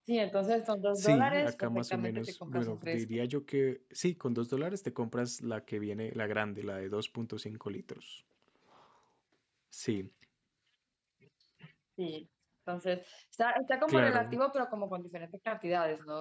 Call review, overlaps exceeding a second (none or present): present